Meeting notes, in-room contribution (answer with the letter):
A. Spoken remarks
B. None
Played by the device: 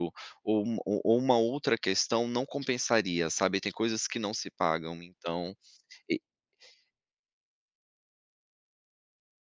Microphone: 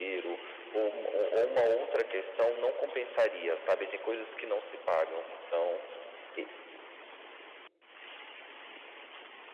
B